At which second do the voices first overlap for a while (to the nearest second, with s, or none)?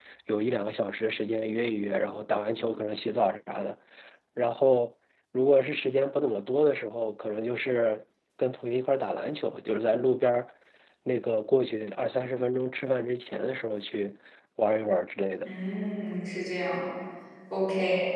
none